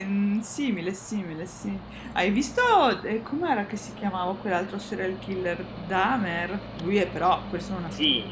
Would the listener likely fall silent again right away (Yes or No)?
No